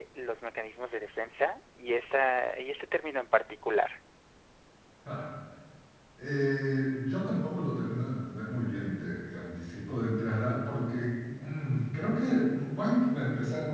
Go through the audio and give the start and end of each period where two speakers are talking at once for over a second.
none

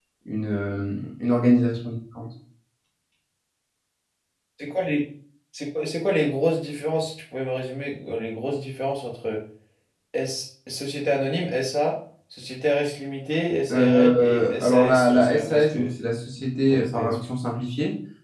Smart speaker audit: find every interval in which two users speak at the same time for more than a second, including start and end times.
13.7-15.9

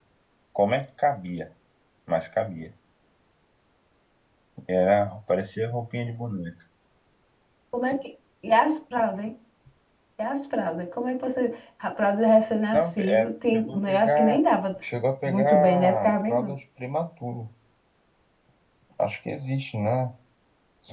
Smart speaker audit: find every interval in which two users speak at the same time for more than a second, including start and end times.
12.7-14.4, 15.2-16.5

